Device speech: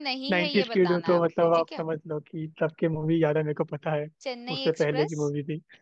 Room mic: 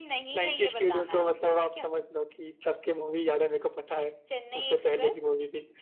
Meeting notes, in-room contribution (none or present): none